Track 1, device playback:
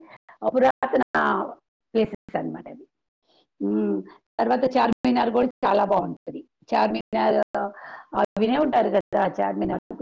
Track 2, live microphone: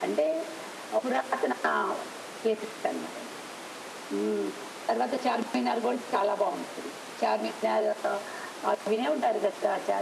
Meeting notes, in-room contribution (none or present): none